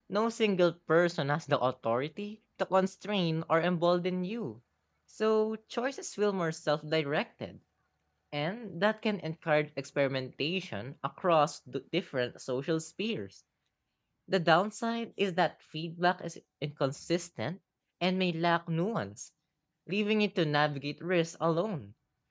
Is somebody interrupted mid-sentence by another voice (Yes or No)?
No